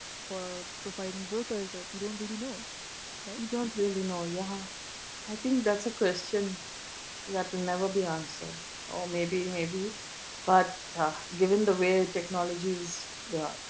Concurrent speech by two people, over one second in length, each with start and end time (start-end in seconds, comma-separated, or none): none